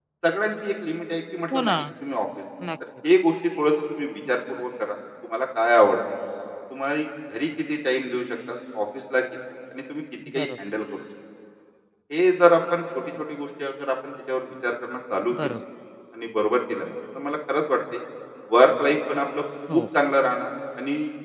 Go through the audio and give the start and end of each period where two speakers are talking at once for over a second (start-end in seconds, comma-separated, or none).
none